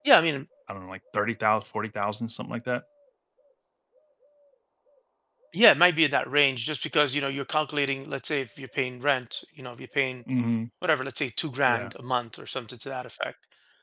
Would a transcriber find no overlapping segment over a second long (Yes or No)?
Yes